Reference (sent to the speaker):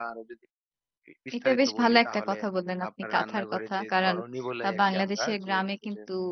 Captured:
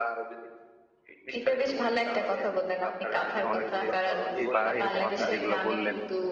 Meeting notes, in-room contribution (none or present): present